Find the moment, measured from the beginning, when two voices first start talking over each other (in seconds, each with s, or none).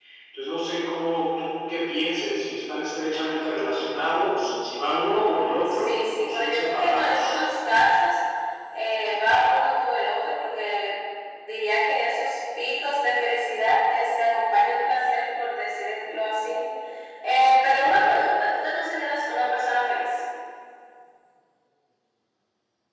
5.8 s